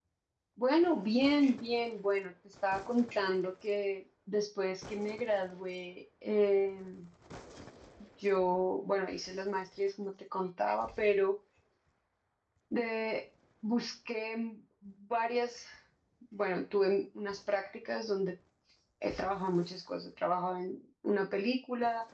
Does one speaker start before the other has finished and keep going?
No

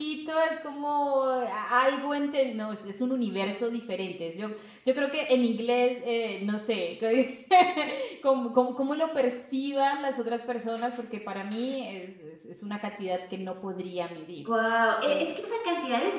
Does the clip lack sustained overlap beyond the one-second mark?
Yes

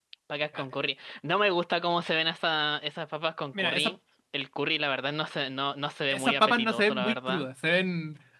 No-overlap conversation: No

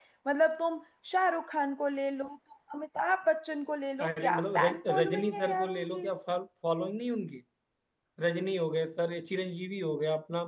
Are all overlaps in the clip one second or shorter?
No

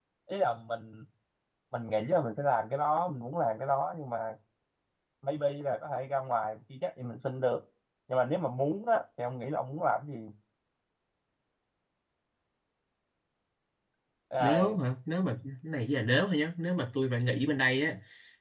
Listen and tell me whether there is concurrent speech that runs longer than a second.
No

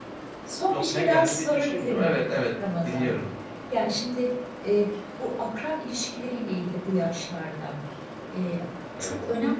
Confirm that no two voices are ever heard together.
No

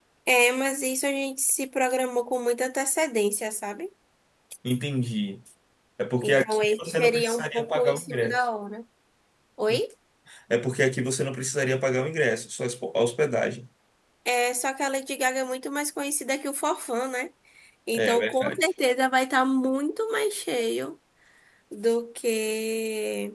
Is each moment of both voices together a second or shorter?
No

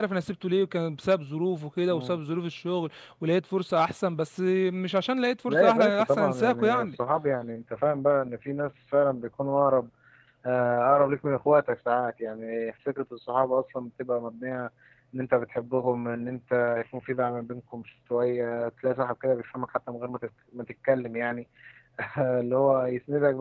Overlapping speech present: Yes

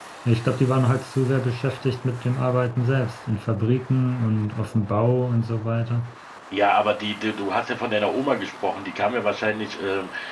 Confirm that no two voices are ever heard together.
Yes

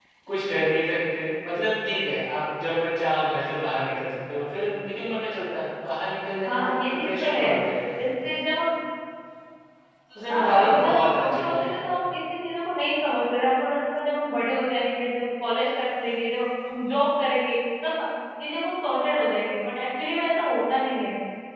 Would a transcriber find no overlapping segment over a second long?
No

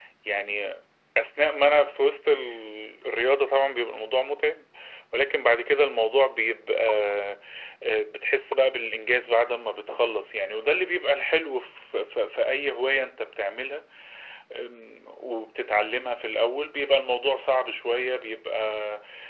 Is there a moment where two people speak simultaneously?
No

